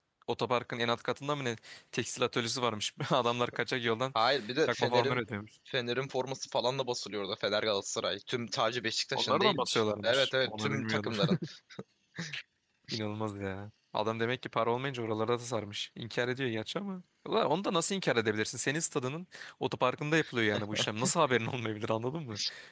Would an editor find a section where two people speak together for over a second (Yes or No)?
Yes